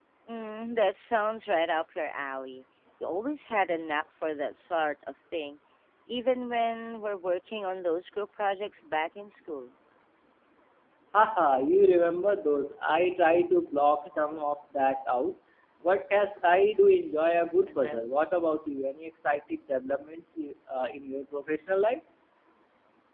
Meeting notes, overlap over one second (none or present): none